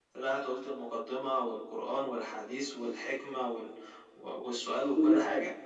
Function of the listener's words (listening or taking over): listening